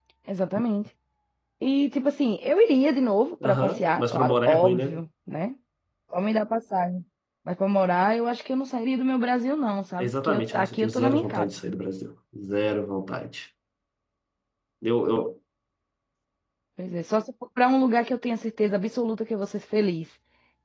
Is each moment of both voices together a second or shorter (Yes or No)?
No